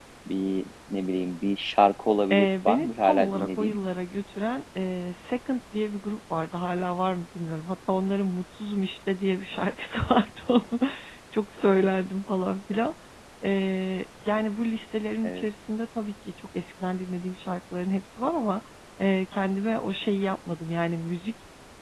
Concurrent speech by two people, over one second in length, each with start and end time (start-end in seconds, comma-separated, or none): 2.3-3.8